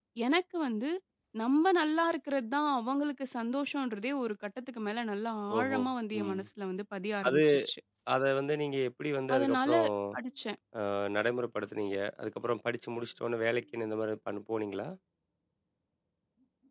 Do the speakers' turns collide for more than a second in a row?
No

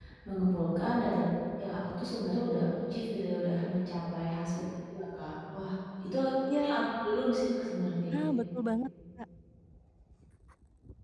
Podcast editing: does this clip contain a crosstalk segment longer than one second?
No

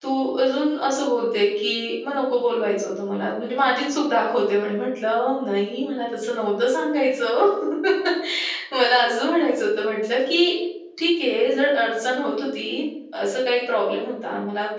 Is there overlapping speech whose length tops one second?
No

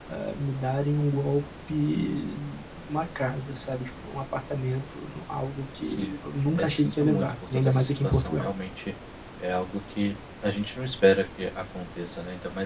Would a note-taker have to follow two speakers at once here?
Yes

